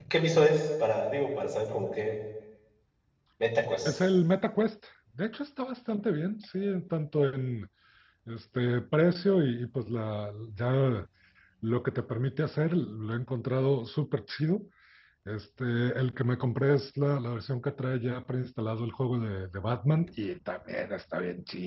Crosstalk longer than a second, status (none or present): none